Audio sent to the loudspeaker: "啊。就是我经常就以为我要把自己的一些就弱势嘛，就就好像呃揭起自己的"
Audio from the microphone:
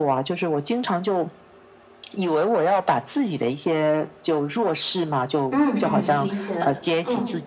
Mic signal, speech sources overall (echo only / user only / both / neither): both